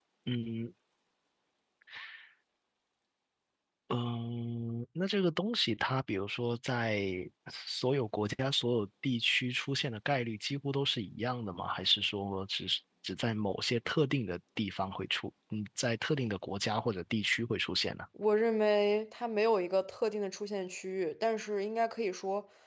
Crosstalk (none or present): none